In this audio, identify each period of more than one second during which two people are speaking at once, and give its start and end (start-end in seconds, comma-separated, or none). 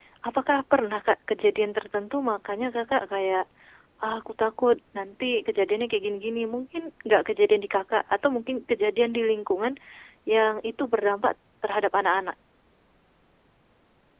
none